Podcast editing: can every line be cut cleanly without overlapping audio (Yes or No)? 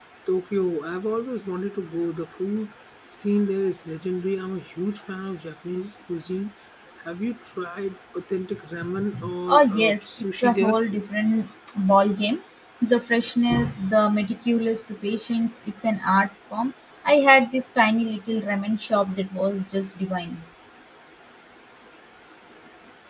No